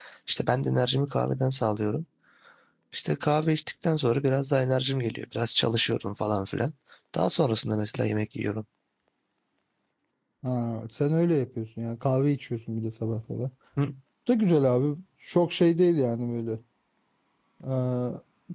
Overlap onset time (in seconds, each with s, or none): none